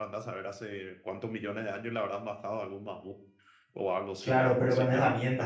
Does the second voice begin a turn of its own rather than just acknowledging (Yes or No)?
Yes